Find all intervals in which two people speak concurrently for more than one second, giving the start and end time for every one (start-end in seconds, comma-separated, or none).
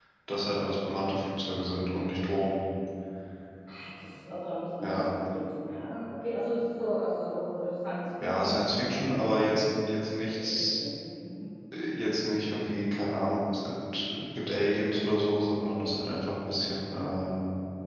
8.2-9.5